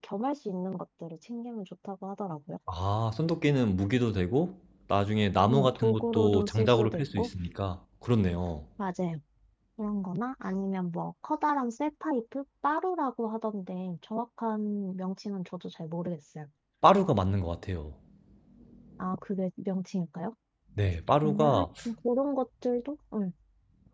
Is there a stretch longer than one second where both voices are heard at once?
Yes, from 5.5 s

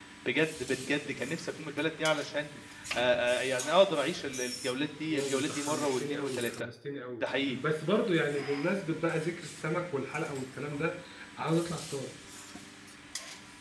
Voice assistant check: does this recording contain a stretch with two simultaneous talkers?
Yes, from 5.1 s

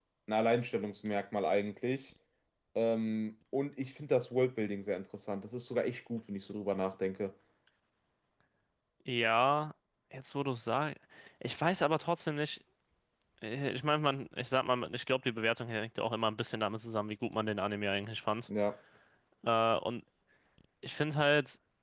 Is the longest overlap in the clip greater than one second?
No

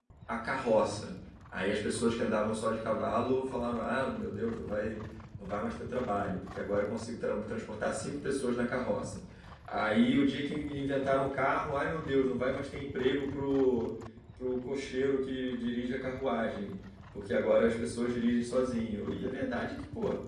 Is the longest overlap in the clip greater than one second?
No

